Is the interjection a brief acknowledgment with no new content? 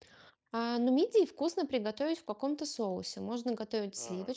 Yes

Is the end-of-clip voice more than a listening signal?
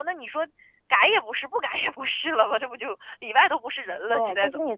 Yes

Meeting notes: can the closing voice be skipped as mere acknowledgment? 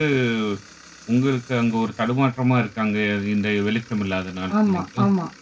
No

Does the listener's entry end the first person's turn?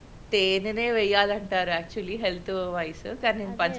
No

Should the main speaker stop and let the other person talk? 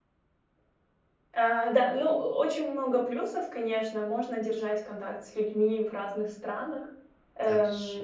No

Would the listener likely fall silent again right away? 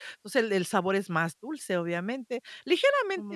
Yes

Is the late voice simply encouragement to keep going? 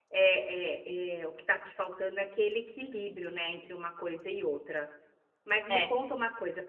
Yes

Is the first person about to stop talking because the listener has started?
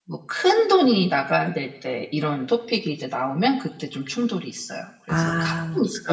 Yes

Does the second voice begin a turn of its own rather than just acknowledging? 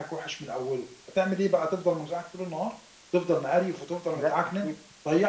No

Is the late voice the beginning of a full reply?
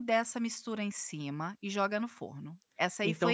Yes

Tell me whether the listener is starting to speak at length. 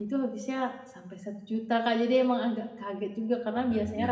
No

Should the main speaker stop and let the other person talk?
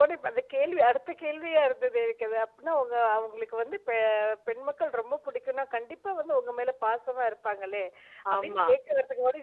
No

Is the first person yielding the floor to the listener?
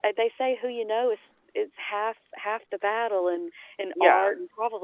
No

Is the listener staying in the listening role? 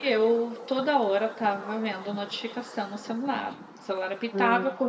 Yes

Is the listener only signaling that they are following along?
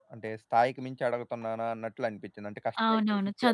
No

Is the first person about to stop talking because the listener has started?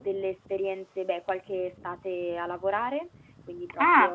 Yes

